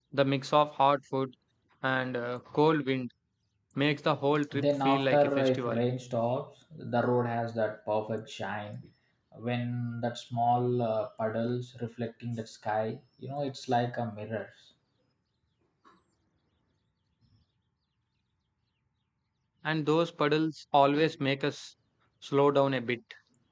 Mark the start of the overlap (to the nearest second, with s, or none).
5 s